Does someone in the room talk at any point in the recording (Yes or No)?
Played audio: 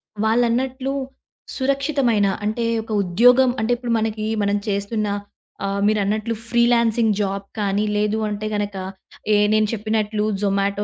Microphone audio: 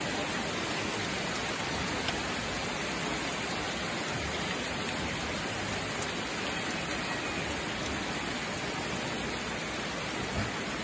No